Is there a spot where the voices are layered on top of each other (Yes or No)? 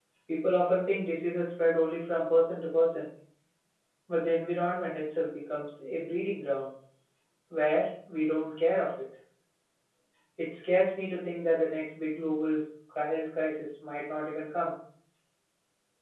No